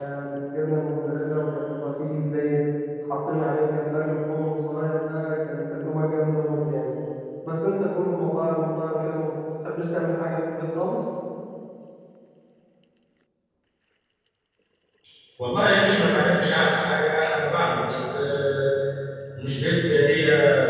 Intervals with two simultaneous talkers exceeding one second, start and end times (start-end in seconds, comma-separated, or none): none